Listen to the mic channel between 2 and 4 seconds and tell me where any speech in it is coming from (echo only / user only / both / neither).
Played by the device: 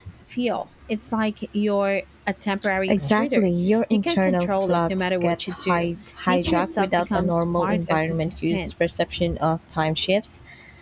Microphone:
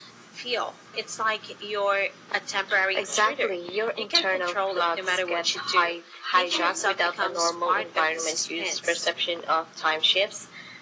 echo only